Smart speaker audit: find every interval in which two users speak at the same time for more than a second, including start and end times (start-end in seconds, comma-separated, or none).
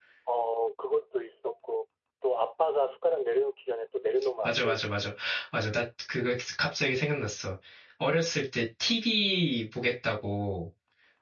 none